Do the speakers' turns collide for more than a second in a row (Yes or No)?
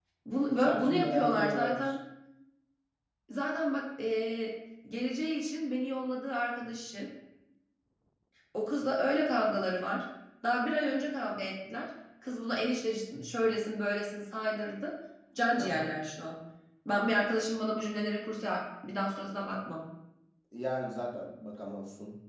Yes